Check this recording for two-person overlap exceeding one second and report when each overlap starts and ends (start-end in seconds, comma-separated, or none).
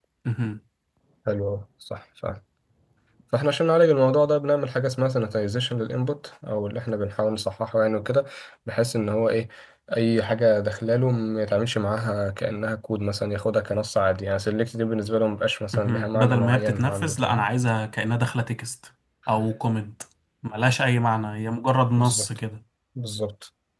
15.7-17.5